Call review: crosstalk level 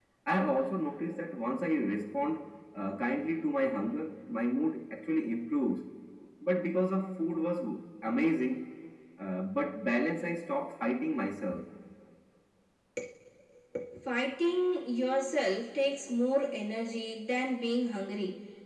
none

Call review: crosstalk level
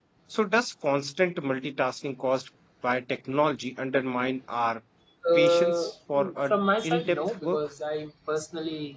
present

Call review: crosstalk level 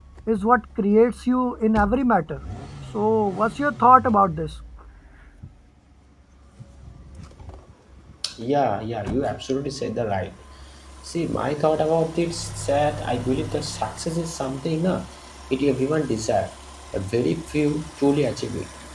none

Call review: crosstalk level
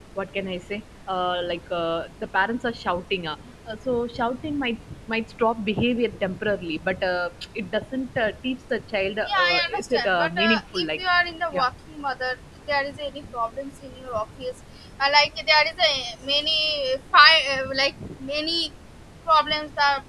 present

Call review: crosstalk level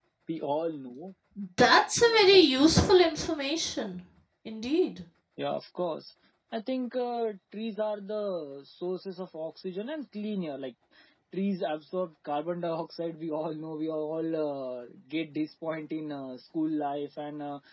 none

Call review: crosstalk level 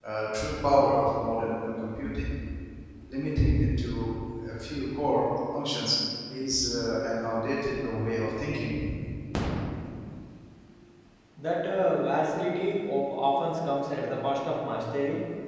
none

